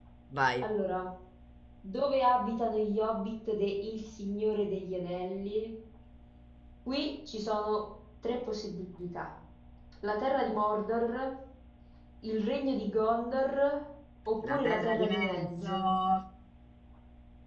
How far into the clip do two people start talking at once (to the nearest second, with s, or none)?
14 s